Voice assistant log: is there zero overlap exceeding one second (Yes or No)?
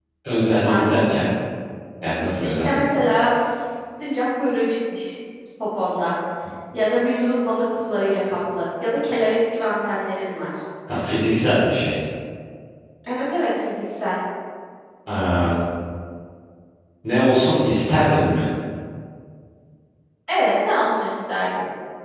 Yes